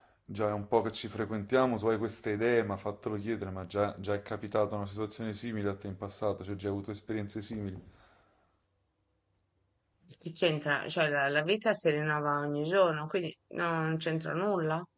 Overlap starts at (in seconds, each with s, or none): none